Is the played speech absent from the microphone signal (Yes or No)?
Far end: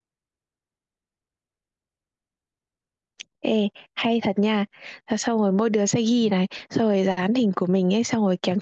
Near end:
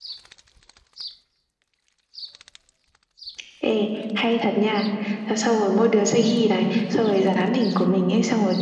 No